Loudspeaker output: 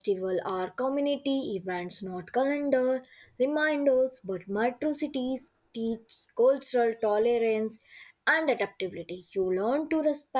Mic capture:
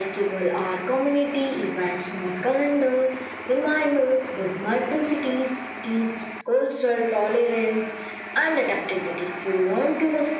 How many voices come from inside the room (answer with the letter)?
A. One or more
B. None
B